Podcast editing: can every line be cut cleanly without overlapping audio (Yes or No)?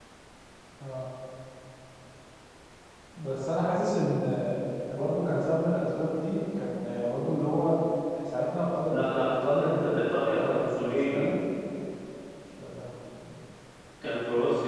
No